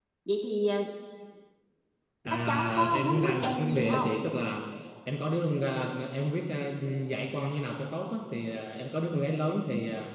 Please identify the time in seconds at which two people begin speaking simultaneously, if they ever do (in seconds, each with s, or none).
2.3 s